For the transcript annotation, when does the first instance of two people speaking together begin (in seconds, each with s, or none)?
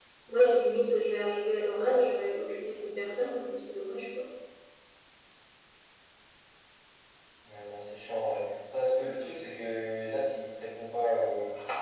none